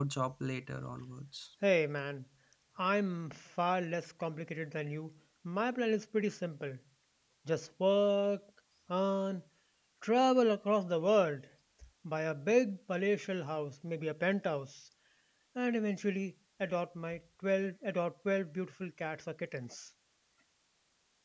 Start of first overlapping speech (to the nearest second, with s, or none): none